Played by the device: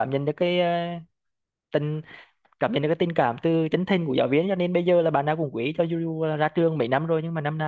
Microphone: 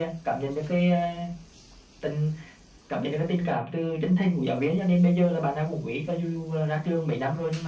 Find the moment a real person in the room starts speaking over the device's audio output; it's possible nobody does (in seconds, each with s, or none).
none